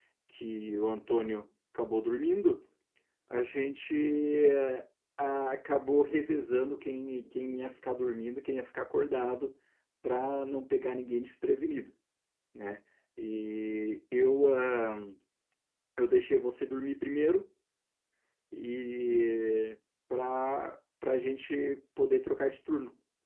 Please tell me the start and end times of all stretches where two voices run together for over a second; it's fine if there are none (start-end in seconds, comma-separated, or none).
none